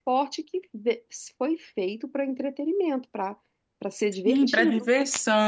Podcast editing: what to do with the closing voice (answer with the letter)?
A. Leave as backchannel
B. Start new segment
B